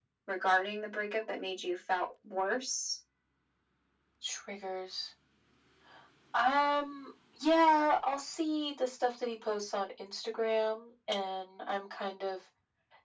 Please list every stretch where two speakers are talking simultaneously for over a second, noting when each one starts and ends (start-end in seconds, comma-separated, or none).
none